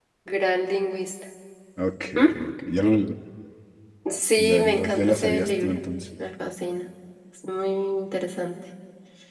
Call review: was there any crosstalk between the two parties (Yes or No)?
Yes